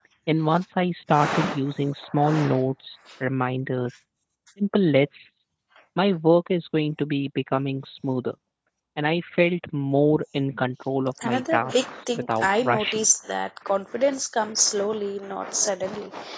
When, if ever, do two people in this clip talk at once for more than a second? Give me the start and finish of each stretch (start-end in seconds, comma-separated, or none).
11.2-13.0